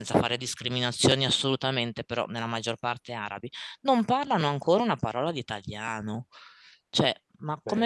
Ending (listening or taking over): listening